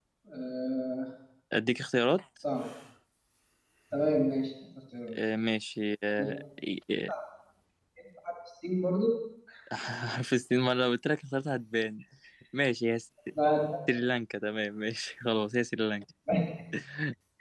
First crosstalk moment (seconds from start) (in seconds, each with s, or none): none